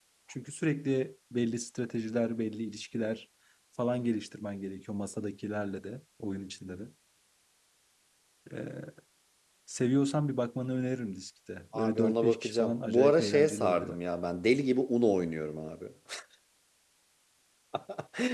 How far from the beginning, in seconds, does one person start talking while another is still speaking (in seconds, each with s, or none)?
11.7 s